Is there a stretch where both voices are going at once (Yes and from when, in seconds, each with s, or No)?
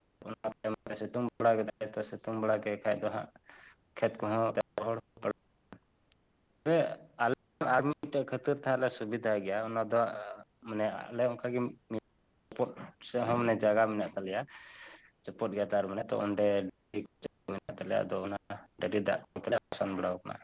No